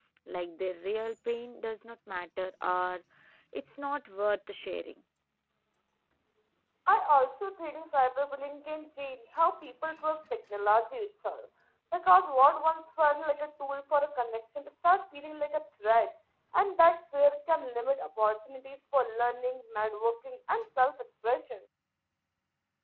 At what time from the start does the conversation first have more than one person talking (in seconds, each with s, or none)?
none